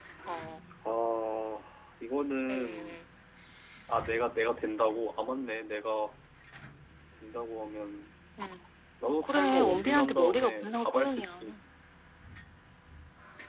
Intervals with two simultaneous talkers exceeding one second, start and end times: 9.2-11.5

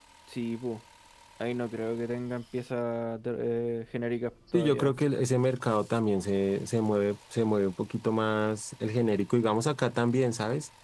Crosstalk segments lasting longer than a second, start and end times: none

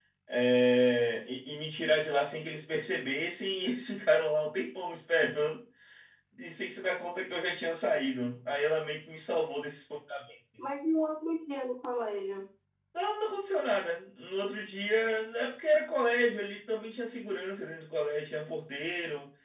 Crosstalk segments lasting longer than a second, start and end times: none

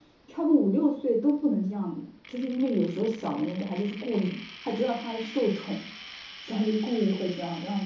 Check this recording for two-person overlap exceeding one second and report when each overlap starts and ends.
none

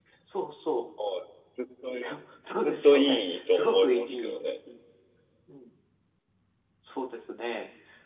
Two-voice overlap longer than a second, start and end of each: 2.6-4.4

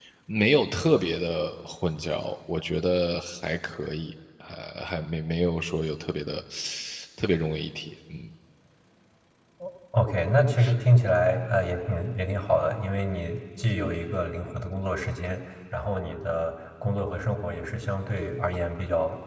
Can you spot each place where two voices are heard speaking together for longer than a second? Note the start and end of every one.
none

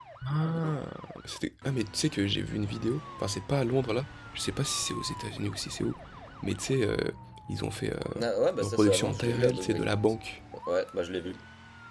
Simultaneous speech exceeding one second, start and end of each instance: 8.6-9.9

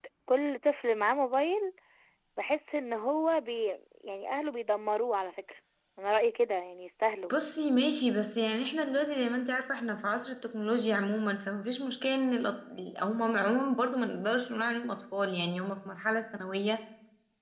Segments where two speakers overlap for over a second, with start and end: none

